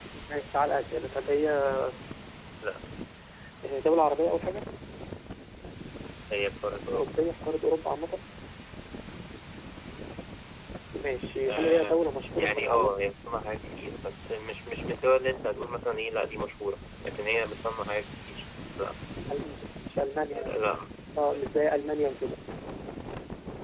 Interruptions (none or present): present